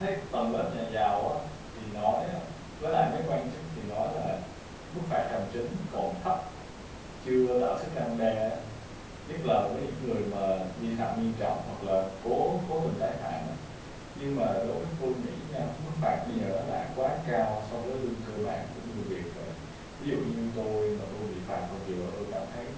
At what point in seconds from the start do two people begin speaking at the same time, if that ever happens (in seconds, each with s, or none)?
none